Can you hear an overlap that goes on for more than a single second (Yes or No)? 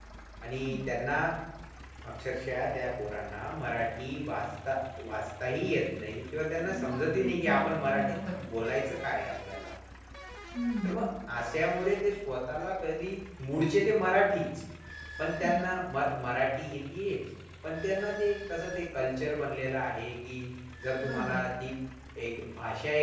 Yes